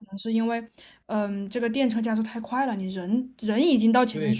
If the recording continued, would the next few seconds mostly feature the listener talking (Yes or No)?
Yes